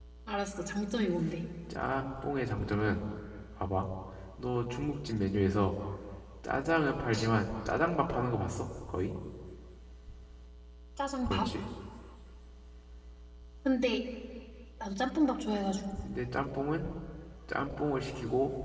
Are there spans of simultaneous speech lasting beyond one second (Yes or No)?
No